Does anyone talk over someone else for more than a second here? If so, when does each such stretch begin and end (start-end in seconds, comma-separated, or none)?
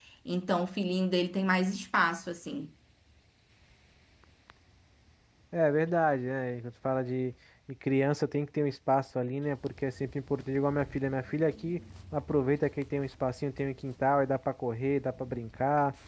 none